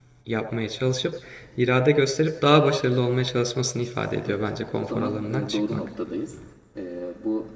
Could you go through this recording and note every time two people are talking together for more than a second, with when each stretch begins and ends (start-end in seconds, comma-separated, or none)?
4.3-5.9